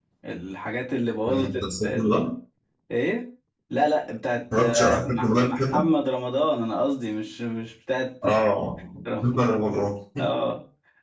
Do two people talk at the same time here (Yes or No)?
Yes